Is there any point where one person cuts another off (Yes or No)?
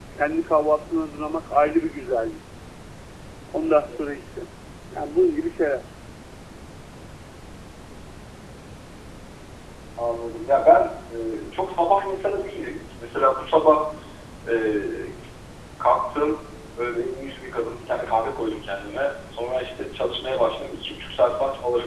No